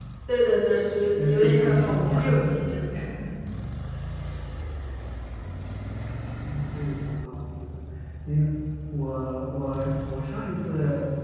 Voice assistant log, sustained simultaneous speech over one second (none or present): present